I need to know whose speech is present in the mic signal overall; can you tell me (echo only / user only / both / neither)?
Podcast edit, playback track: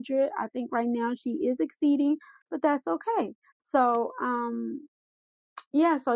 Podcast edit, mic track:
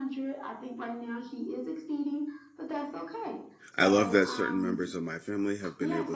both